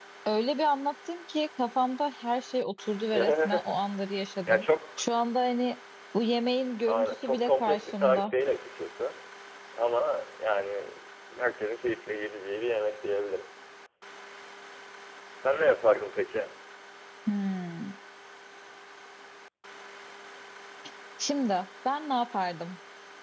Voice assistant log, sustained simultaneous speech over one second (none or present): present